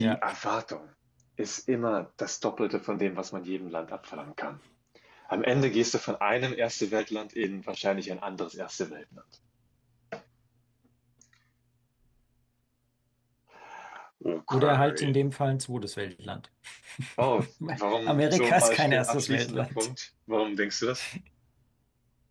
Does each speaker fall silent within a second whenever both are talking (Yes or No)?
No